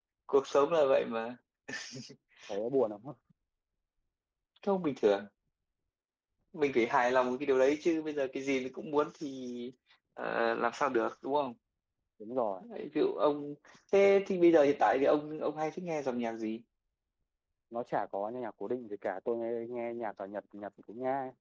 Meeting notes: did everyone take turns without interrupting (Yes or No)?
Yes